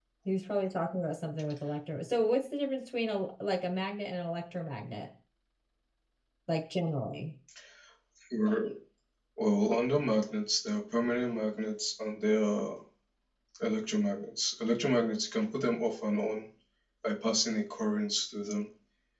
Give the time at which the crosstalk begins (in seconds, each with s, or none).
none